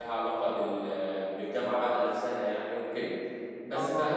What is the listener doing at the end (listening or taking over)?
listening